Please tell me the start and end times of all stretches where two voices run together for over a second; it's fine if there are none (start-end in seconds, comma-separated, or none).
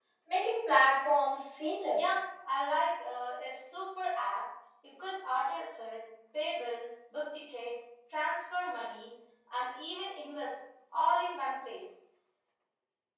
none